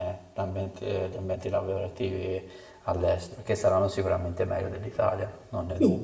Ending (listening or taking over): taking over